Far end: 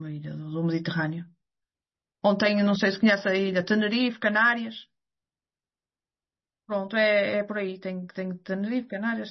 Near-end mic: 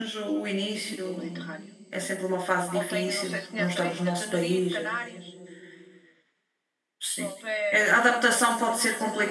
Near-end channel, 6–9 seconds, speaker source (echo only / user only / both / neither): both